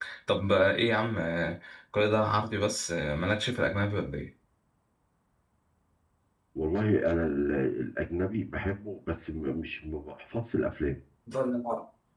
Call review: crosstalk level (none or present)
none